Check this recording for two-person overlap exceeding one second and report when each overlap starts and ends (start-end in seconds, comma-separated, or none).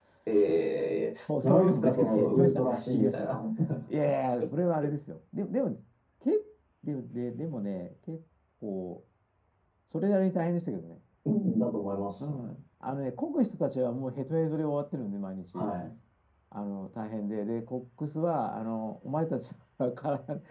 1.3-3.3